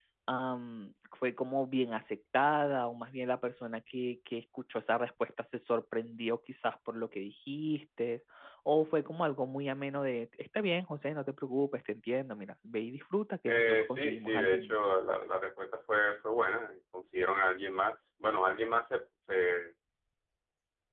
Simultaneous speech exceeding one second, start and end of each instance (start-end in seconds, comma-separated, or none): 13.5-14.8